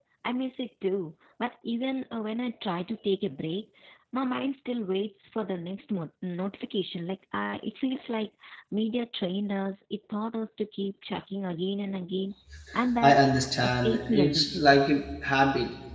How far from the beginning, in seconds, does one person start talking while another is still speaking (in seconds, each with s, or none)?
13.0 s